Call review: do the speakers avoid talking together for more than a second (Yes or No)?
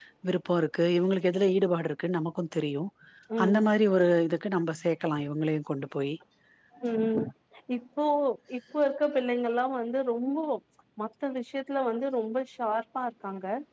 Yes